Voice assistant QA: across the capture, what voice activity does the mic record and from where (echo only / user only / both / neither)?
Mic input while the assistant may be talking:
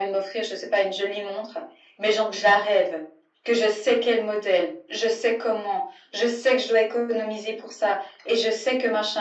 echo only